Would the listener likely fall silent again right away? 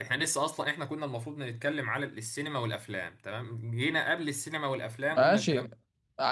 No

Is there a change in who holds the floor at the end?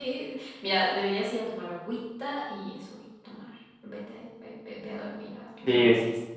Yes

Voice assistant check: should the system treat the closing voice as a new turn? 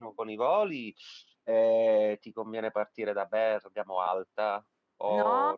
Yes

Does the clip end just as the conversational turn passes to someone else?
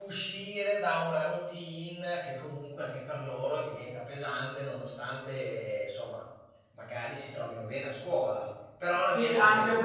Yes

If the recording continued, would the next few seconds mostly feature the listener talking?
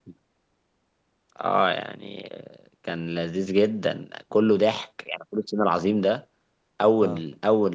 No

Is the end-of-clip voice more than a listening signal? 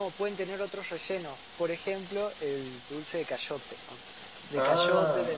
No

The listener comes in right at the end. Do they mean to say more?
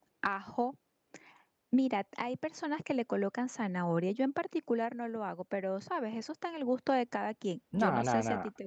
Yes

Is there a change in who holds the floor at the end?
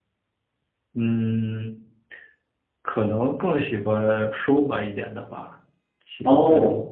No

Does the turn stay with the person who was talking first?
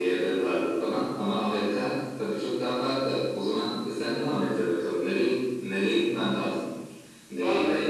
No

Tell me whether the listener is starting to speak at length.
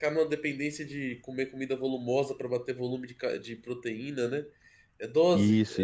Yes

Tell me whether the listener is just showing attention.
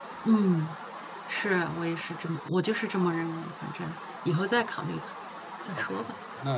No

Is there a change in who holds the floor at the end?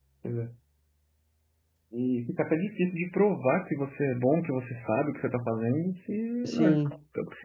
No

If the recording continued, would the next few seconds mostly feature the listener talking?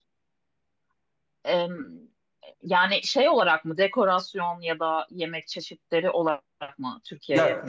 Yes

